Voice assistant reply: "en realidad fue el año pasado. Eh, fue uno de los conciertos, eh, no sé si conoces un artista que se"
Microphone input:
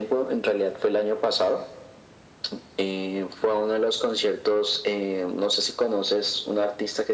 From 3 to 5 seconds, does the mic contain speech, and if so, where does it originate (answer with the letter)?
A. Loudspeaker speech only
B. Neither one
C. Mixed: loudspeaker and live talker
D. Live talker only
A